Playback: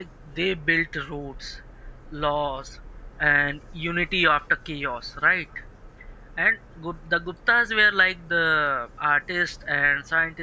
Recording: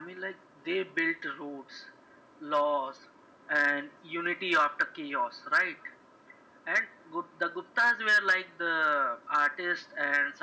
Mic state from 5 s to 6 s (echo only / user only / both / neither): echo only